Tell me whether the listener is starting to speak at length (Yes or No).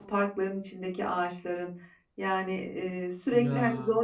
No